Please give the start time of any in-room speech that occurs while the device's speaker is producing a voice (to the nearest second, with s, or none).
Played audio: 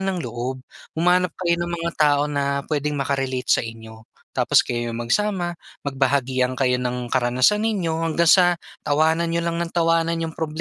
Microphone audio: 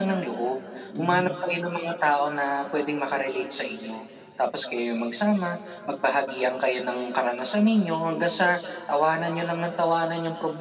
1 s